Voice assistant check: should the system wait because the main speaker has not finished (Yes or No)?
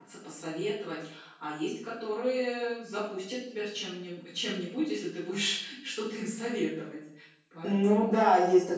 No